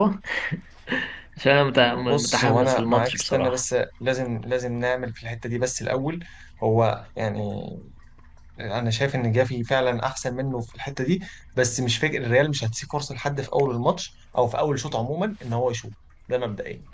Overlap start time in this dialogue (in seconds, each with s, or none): 1.7 s